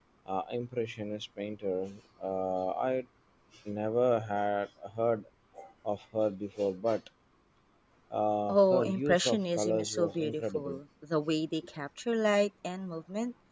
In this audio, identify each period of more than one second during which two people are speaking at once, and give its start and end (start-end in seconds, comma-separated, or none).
8.5-10.8